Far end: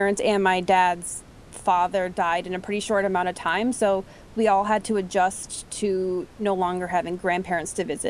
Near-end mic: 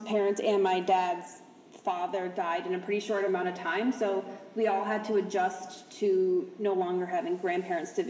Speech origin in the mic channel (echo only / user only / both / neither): echo only